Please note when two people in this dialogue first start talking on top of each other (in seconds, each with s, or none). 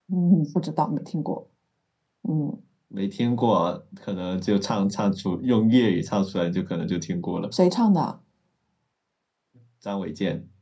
none